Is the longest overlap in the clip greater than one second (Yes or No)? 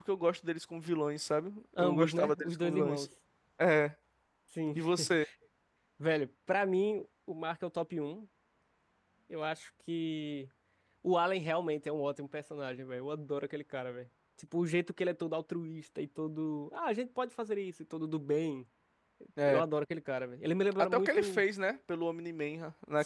Yes